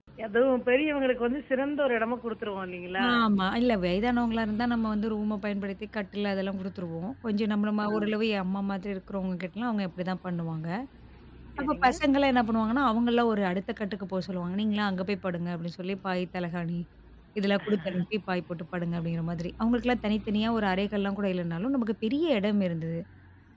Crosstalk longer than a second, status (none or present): none